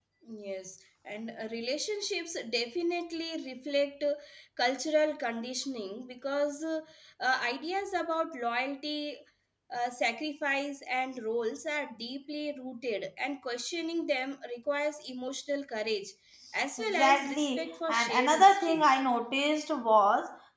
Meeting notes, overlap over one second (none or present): present